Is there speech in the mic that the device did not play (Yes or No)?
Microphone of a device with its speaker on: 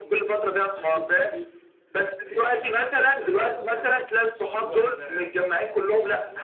Yes